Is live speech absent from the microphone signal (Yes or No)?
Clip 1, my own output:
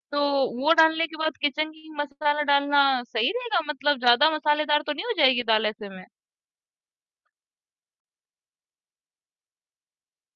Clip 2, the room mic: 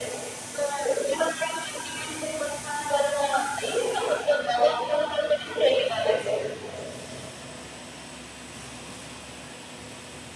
Yes